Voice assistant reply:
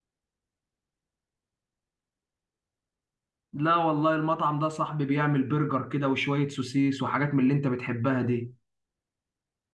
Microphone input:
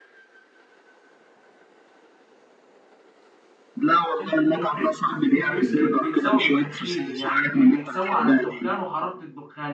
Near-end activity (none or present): present